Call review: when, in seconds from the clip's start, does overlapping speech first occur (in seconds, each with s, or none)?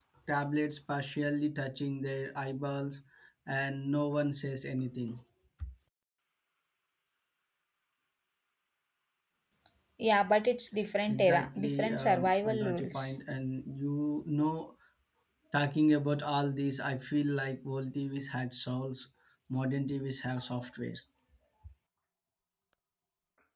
11.1 s